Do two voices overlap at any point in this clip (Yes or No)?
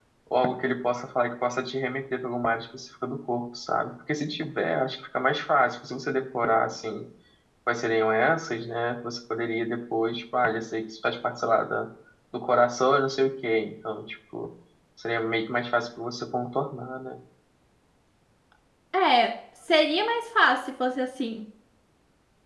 No